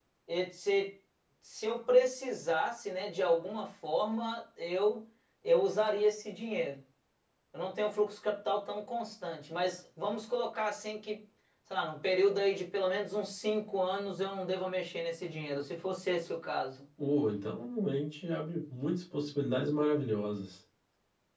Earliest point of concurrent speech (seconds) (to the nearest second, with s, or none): none